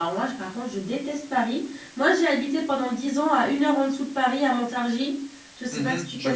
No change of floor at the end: No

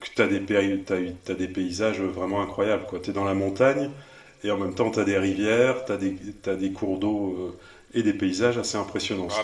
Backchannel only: No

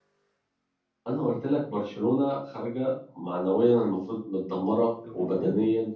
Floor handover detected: No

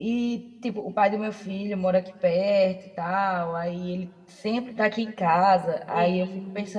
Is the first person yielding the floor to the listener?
No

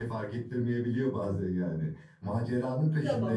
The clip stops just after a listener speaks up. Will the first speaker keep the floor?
Yes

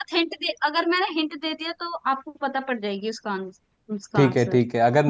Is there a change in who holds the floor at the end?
Yes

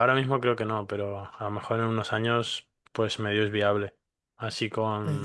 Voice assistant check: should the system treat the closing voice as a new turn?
No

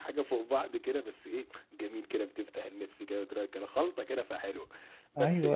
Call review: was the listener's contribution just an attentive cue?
Yes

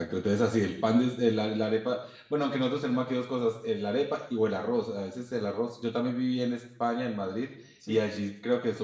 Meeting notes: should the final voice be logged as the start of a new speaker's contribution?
No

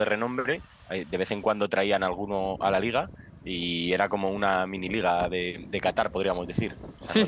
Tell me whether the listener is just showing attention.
No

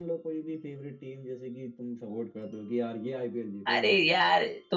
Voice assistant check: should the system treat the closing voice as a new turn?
Yes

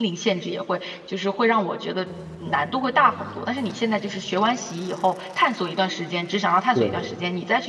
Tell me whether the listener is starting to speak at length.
No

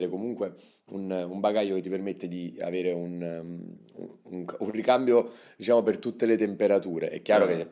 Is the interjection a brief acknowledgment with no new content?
Yes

